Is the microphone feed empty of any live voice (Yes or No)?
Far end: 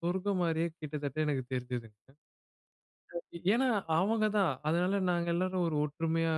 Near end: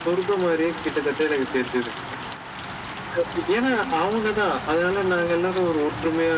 Yes